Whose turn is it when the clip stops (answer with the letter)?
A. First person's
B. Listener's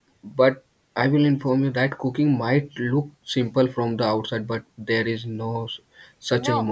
B